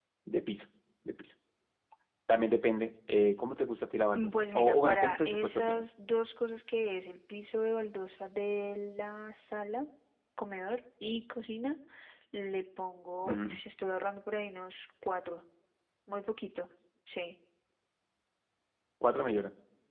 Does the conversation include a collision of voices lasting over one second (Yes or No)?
Yes